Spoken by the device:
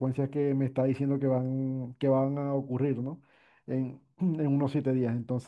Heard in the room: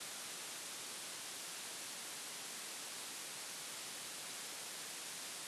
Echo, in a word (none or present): none